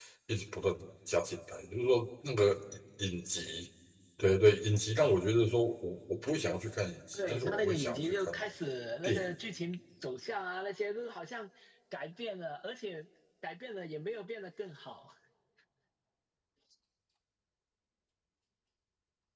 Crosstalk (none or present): present